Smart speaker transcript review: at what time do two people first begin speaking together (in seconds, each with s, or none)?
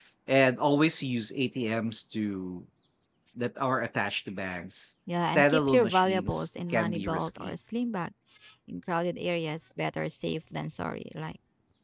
5.1 s